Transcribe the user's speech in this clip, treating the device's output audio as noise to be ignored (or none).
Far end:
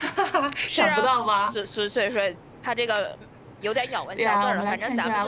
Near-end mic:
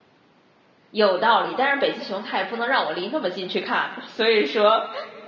有道理。但是北极熊它也不能让我离那么近去看，所以说，